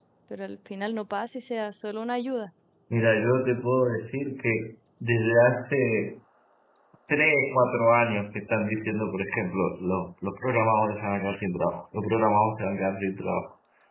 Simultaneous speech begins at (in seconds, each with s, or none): none